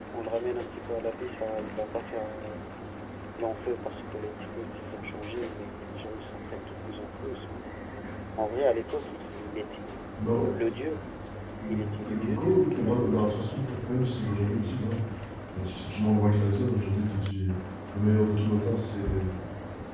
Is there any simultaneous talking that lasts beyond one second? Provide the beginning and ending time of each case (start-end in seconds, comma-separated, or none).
11.7-13.5